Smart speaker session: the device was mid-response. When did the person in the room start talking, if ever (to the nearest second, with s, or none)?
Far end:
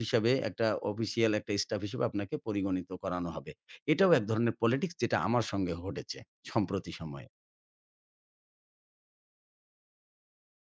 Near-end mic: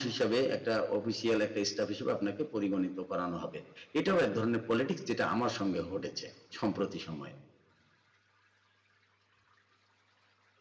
none